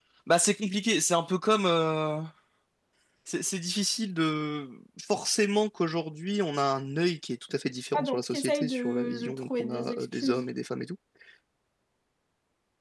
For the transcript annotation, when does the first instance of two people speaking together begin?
7.9 s

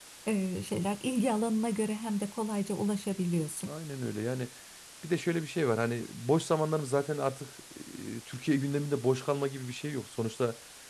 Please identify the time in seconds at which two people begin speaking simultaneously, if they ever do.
none

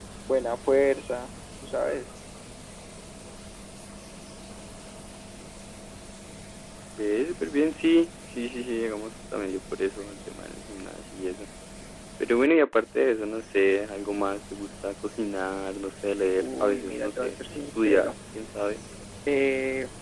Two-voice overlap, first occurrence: 16.4 s

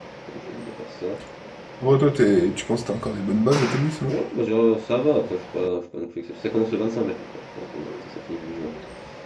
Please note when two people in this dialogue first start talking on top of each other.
none

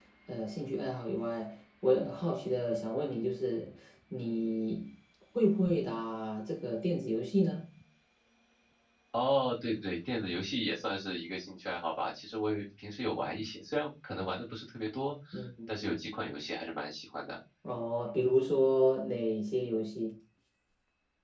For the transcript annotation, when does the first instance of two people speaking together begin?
none

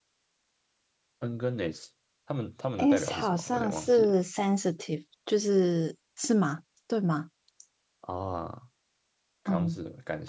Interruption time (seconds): 2.8 s

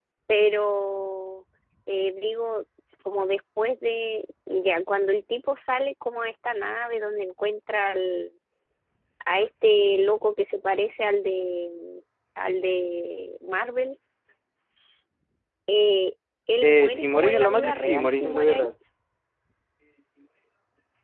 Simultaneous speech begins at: 16.6 s

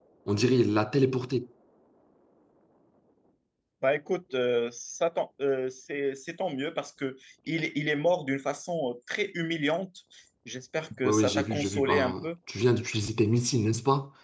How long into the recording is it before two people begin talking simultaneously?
11.0 s

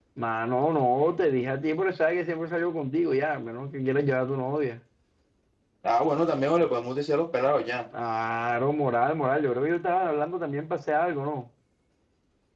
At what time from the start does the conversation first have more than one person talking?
none

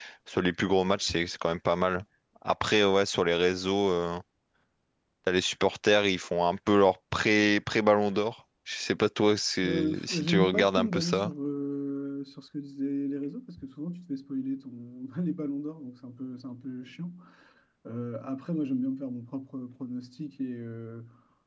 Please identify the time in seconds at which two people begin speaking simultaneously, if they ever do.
9.6 s

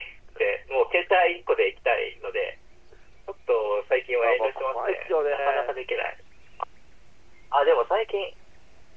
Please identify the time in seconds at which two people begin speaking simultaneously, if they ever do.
4.2 s

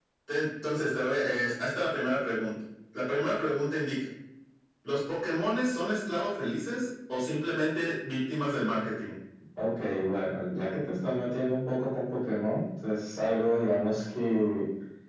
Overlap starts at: none

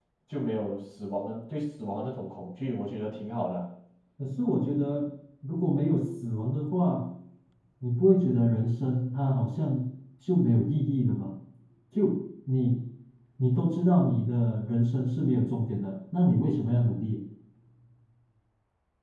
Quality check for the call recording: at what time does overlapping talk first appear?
none

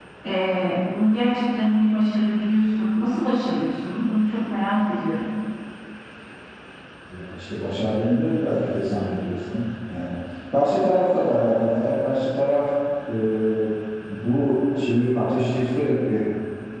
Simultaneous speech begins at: none

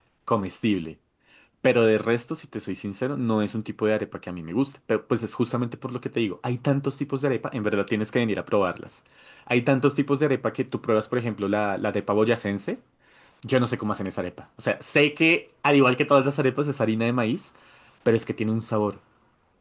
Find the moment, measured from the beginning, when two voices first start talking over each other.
none

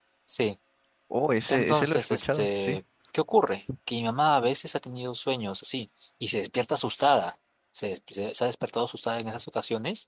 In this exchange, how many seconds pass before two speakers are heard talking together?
1.5 s

